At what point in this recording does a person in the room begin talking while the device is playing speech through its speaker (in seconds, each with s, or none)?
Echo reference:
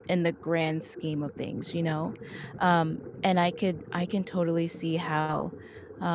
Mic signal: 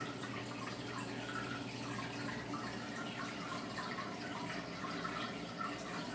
none